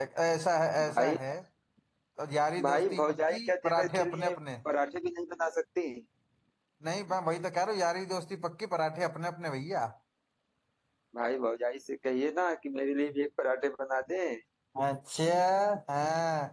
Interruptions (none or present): present